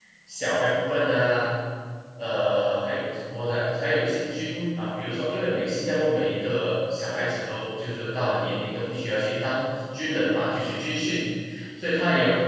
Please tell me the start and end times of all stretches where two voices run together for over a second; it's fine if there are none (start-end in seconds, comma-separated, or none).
none